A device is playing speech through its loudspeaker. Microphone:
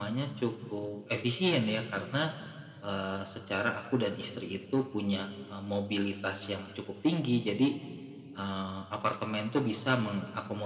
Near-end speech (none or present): none